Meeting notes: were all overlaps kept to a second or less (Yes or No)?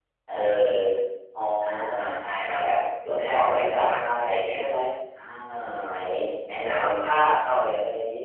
No